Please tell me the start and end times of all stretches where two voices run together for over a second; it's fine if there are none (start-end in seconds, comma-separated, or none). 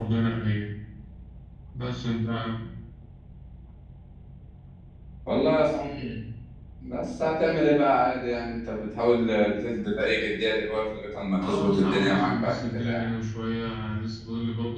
11.5-13.1